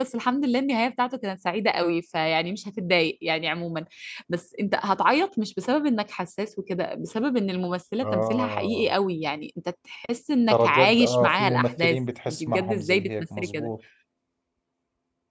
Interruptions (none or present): present